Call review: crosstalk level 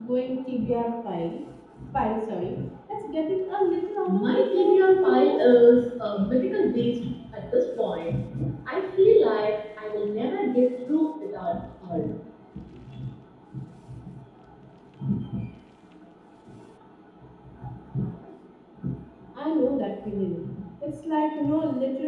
present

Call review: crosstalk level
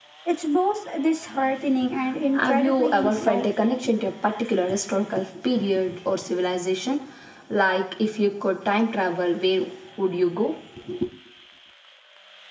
present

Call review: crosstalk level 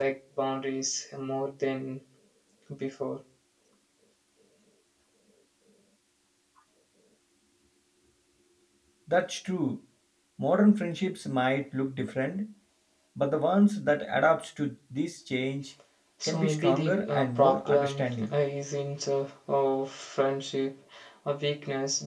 present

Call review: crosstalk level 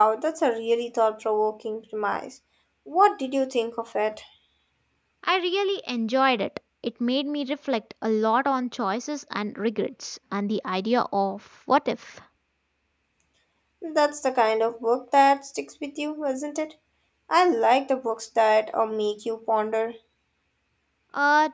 none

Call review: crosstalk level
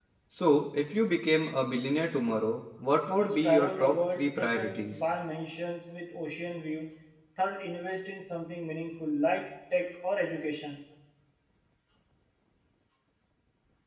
present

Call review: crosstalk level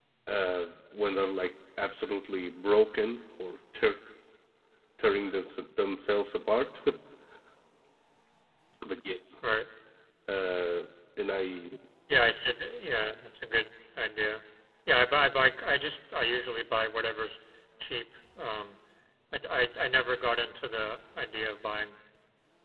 none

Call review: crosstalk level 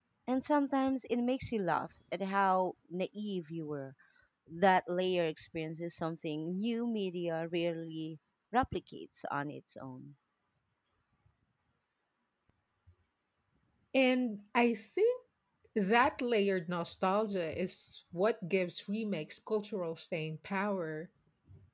none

